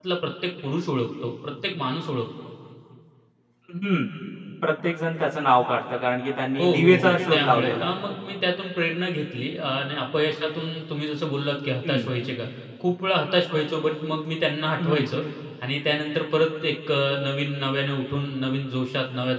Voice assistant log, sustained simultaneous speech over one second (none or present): present